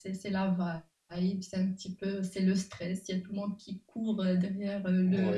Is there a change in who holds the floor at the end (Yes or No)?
Yes